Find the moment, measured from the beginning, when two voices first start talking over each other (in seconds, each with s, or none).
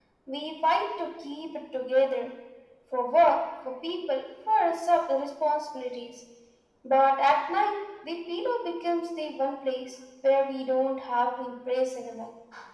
none